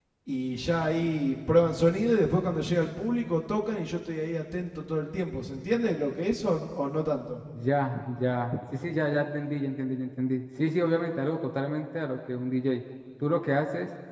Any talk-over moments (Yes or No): No